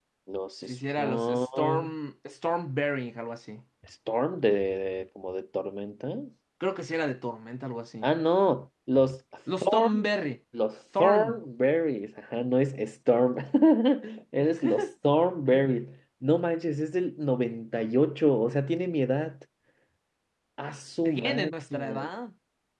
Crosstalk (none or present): present